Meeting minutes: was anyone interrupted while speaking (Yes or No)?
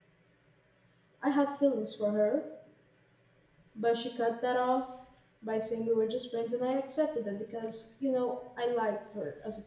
No